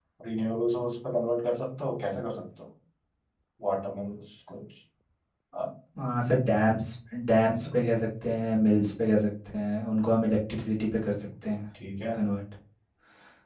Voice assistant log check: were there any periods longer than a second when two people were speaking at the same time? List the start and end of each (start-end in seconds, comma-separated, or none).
none